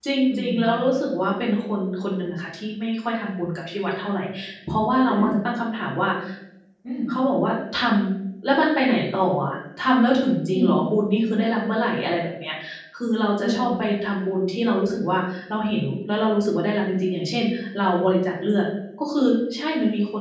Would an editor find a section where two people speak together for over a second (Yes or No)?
No